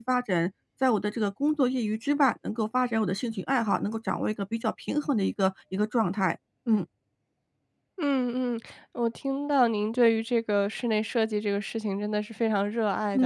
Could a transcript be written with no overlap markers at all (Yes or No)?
Yes